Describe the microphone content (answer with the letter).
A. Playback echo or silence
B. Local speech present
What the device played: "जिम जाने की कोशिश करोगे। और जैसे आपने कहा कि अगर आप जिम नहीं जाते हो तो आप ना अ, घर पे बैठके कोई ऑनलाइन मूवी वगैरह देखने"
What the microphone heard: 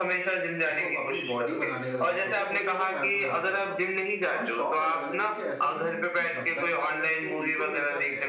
B